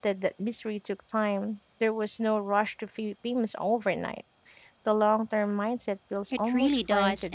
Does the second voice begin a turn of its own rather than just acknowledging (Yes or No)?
Yes